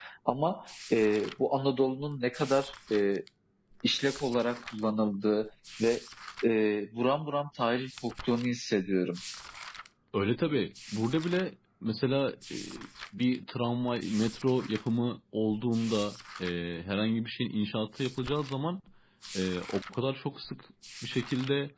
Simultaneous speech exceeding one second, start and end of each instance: none

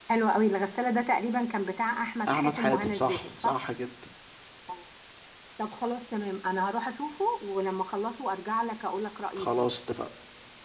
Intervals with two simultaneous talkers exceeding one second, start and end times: 2.3-3.5

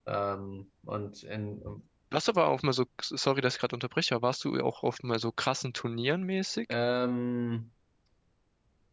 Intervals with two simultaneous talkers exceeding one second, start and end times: none

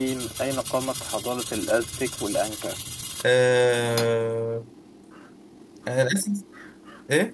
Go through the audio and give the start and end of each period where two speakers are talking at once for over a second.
none

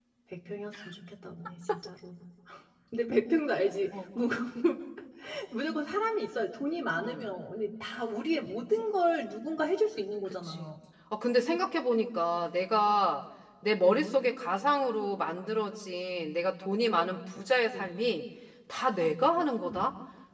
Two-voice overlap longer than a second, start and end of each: none

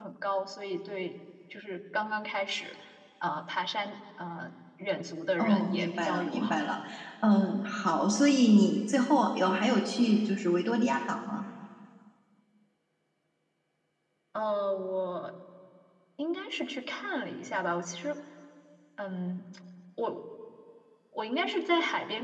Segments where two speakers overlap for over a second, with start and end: 5.4-6.6

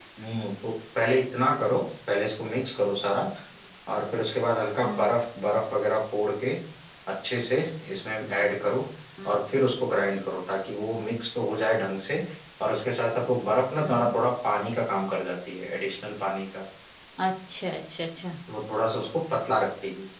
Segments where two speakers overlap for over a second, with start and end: none

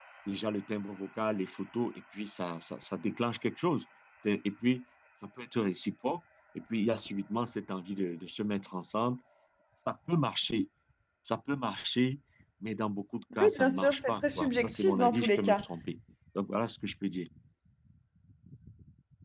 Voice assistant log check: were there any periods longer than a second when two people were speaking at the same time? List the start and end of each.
13.4-15.6

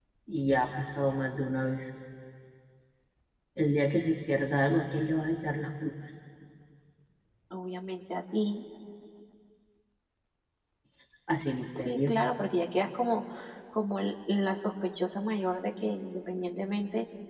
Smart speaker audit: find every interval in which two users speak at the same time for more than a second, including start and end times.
none

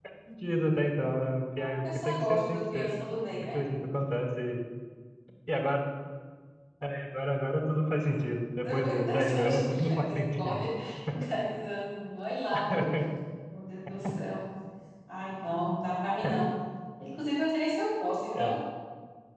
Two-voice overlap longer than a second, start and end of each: 1.6-2.9, 8.6-10.6

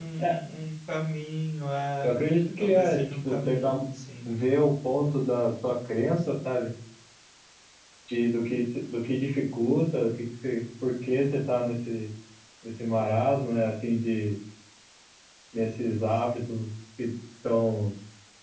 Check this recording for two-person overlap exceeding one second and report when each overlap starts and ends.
2.6-3.8

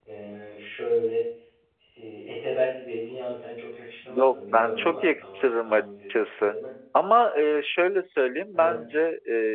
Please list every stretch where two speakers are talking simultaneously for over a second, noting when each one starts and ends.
4.1-6.5

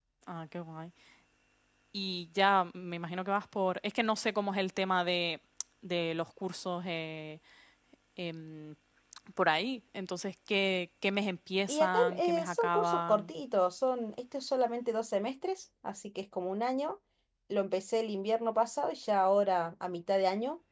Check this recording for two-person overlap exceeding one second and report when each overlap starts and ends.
11.7-13.3

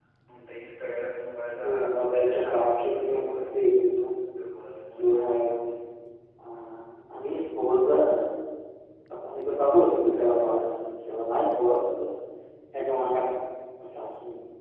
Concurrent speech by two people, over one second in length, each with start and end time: 1.6-3.6

